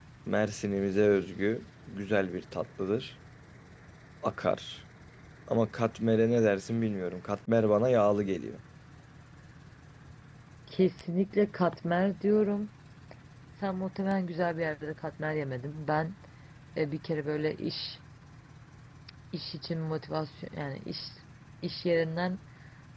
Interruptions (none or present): none